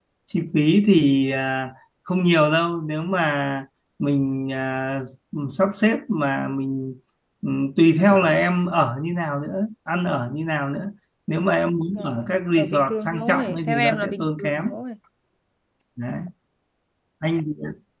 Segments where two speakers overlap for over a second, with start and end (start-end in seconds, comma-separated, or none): 11.9-14.6